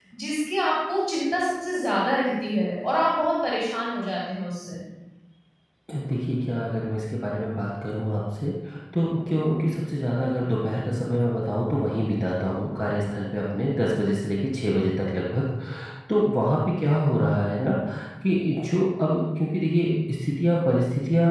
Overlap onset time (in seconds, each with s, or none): none